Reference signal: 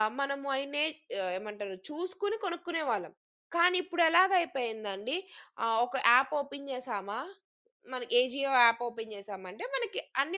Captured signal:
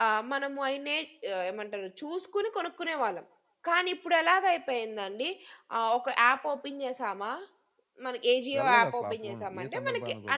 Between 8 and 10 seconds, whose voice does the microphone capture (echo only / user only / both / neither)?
both